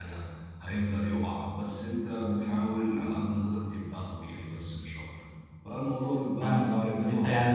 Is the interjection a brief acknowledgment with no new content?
No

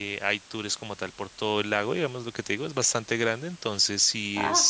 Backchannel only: Yes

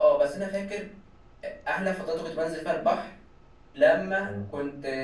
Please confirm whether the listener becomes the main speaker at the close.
No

